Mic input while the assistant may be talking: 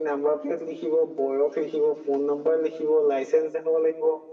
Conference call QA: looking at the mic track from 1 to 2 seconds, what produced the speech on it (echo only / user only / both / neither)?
echo only